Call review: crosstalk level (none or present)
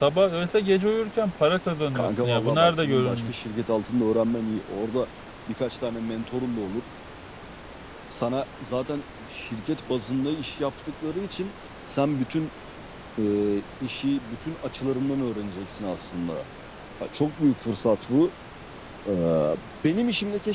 present